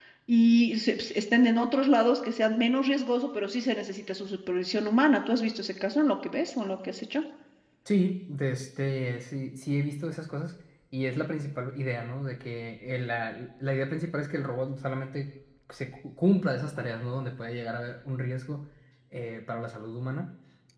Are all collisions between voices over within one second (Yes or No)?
Yes